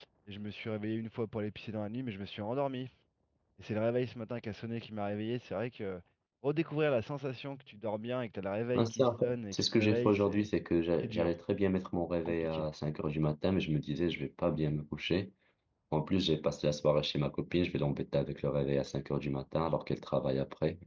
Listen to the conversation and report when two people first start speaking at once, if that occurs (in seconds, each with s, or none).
8.8 s